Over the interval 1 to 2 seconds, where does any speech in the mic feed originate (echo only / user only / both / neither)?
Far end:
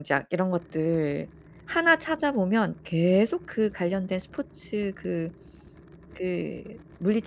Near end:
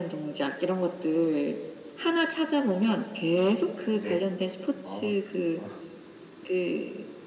echo only